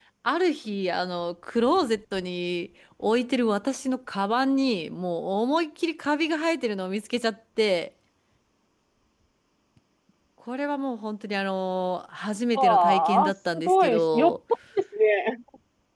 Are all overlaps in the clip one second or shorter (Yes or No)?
No